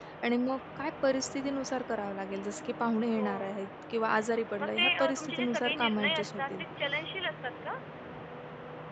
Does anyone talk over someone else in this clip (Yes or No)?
Yes